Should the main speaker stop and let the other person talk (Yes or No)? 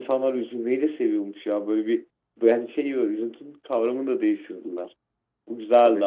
No